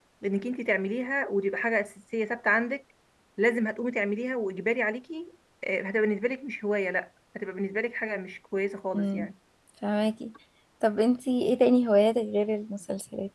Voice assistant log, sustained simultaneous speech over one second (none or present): none